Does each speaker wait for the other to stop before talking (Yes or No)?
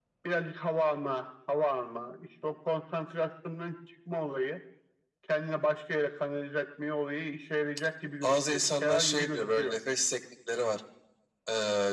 No